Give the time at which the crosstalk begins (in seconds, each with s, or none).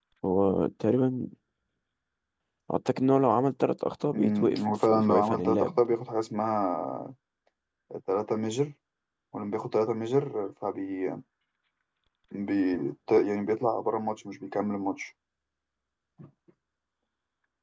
4.1 s